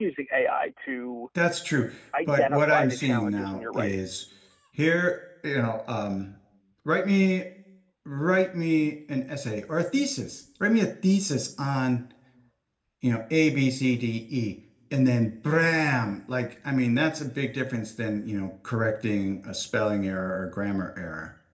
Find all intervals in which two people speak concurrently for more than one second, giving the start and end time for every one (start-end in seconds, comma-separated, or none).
2.3-4.0